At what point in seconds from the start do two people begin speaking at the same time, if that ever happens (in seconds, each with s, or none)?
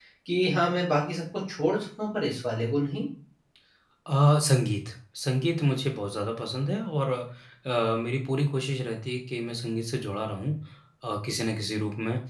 none